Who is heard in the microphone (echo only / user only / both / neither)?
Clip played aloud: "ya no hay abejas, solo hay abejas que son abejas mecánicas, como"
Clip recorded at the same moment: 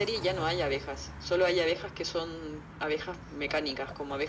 echo only